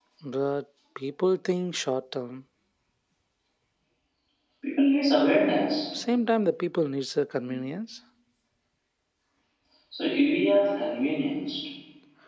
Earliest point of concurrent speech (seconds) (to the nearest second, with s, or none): none